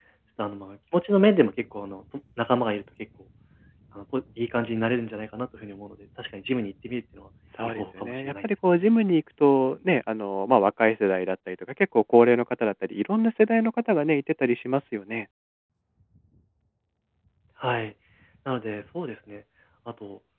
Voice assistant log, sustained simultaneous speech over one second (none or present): present